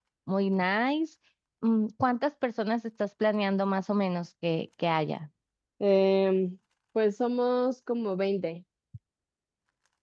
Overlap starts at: none

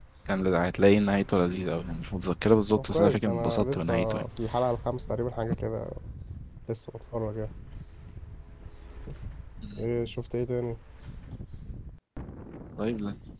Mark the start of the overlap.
3 s

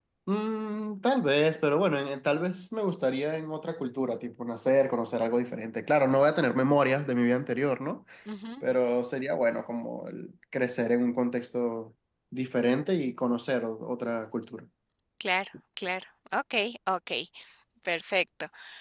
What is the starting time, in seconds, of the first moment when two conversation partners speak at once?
none

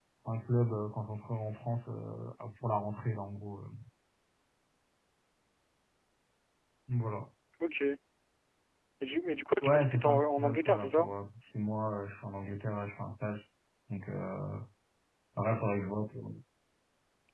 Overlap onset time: 10 s

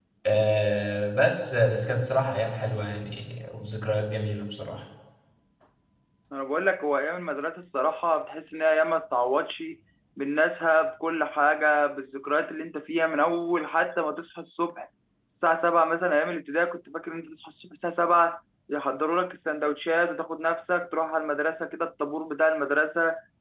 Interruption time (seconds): none

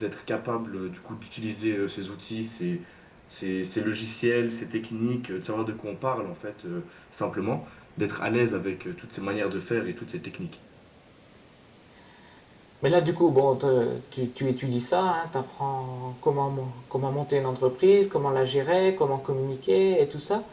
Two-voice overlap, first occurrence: none

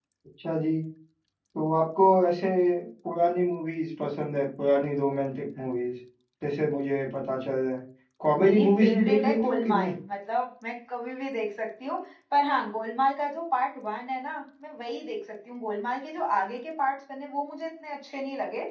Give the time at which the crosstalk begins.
8 s

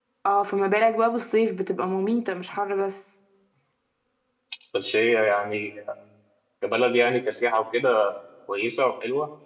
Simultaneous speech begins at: none

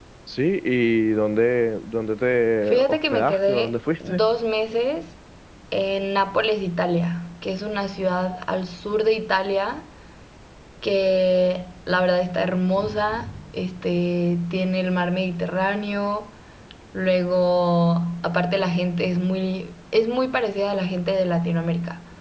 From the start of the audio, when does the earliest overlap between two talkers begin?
3 s

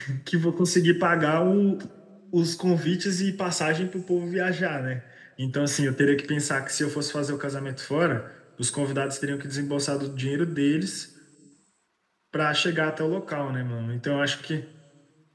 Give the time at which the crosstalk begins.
none

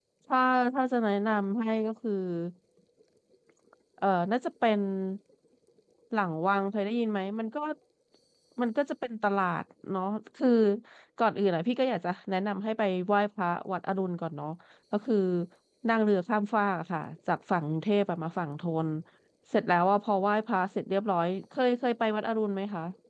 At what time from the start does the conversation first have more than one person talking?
none

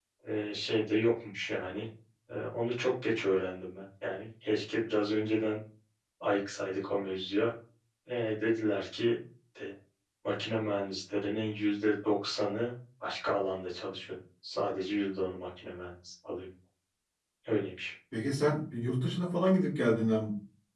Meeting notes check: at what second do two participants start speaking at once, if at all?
none

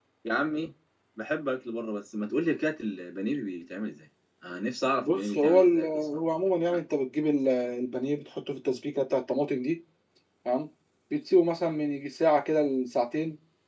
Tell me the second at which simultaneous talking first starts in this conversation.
5 s

